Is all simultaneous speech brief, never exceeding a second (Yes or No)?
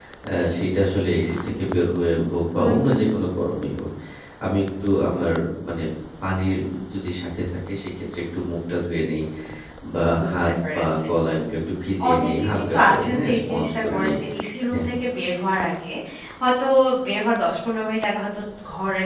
No